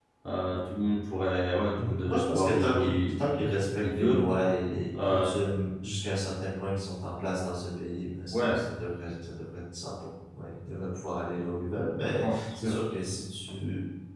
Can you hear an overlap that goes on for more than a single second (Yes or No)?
Yes